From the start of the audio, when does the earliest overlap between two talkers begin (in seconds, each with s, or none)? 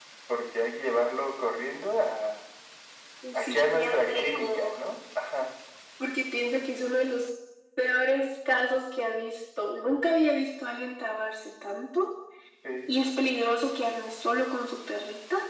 3.3 s